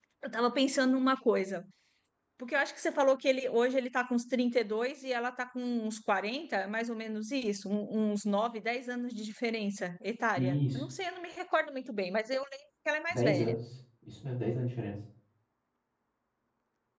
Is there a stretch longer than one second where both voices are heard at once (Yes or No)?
No